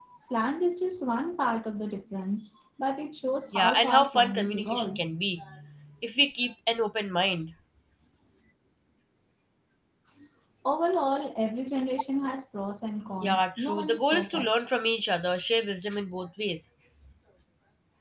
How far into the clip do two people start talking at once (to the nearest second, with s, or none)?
4 s